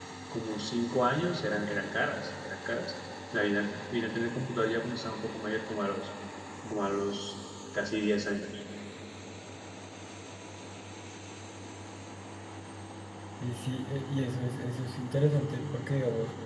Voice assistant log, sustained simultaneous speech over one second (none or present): none